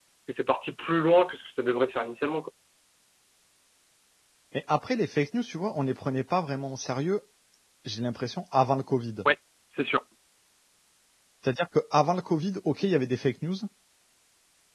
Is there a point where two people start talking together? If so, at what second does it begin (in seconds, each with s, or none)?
none